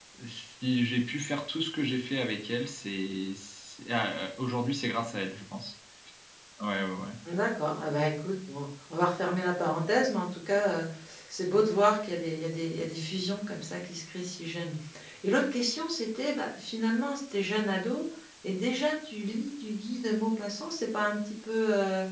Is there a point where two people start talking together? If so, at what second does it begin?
none

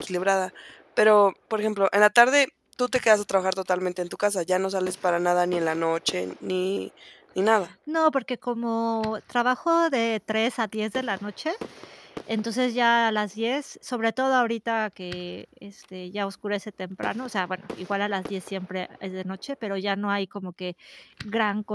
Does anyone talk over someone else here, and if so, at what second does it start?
none

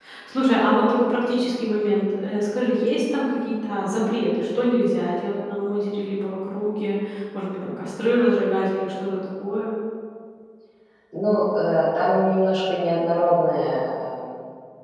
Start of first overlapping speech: none

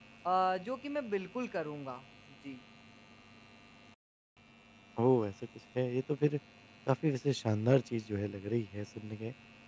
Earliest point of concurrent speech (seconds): none

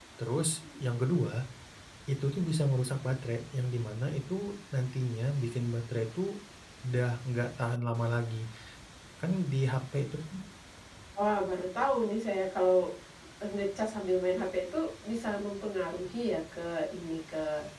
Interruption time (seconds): none

